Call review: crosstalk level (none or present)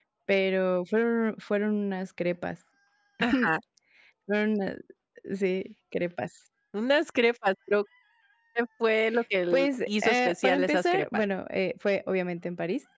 present